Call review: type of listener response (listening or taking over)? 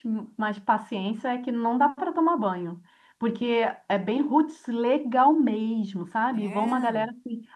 listening